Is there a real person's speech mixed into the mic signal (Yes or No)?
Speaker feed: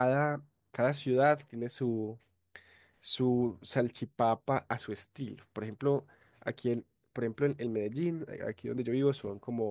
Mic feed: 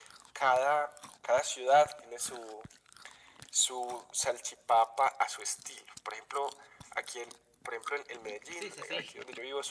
Yes